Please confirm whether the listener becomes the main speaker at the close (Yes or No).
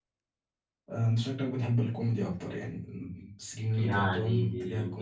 Yes